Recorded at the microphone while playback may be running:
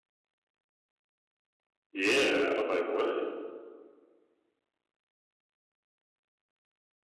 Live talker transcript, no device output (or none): Yeah. I was like, what?